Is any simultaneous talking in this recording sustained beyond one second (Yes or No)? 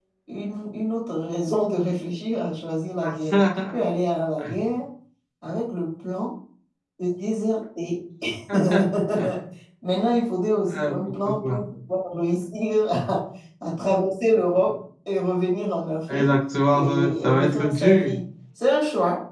Yes